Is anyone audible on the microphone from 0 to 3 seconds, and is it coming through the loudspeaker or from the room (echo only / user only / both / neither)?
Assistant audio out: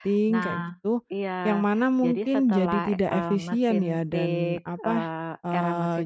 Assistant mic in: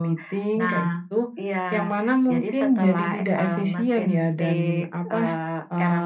echo only